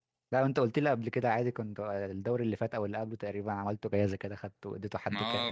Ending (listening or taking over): taking over